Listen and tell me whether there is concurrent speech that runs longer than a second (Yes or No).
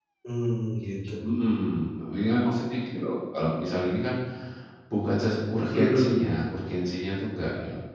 No